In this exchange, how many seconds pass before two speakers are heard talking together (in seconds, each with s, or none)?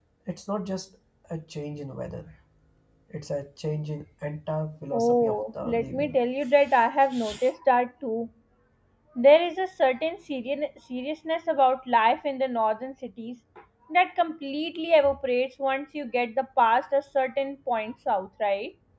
4.9 s